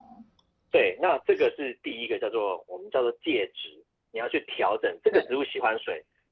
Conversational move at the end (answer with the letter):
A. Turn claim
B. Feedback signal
B